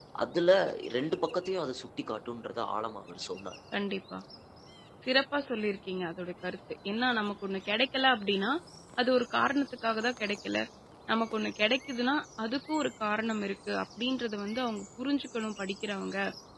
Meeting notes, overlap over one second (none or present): none